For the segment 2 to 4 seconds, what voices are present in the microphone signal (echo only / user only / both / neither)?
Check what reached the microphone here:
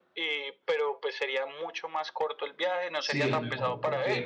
both